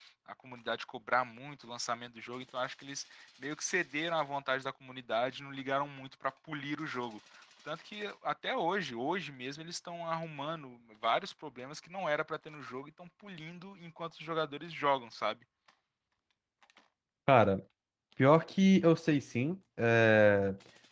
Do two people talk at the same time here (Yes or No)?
No